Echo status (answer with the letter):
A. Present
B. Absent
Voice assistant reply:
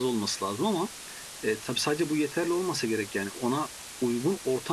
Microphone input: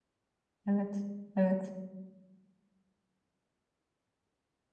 B